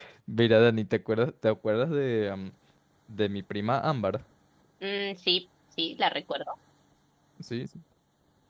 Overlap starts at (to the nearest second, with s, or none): none